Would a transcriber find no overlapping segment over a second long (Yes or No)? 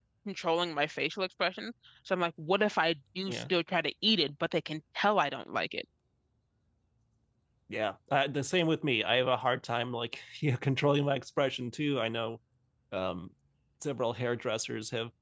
Yes